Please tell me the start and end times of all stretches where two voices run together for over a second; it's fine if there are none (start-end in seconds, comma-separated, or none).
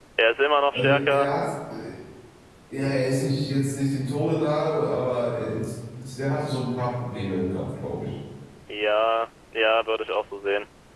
none